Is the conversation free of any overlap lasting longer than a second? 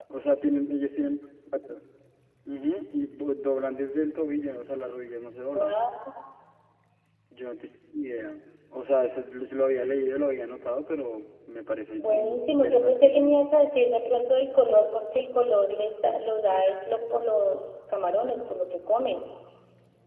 No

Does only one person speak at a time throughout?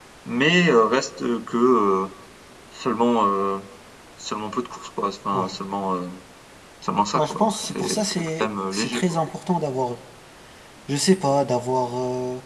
No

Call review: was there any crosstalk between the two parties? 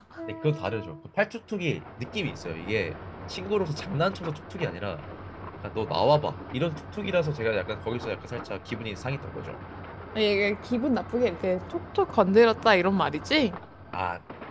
No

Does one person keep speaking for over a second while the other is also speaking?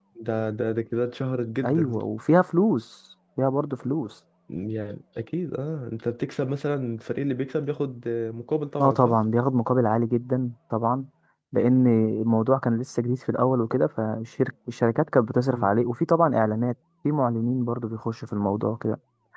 No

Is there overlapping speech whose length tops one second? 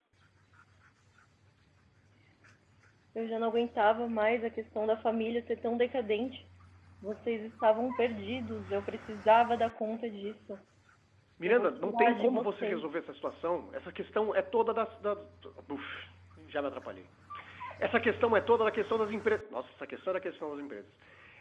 Yes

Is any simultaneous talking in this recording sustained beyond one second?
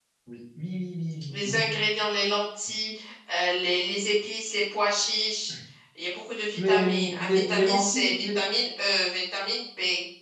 Yes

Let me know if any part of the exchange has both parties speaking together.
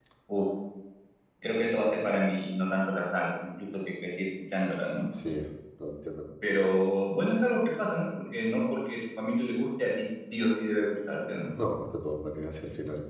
No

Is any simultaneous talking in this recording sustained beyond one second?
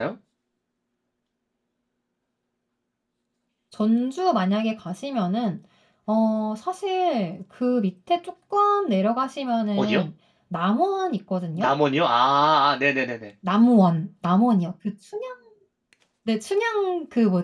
No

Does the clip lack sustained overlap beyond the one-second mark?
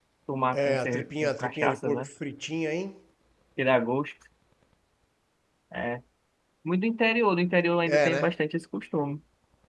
No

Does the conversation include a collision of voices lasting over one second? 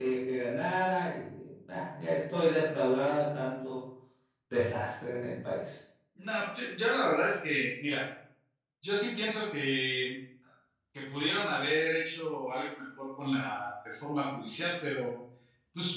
No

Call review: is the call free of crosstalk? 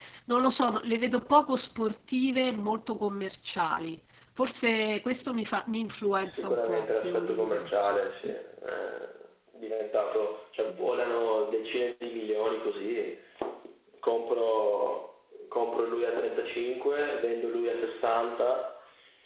No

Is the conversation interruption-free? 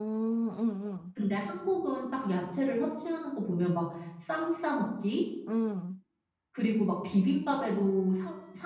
Yes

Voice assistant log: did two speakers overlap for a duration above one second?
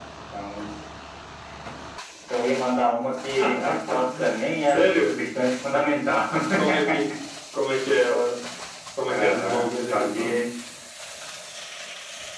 Yes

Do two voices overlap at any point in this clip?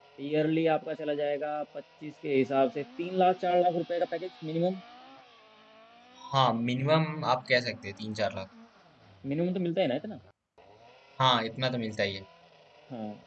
No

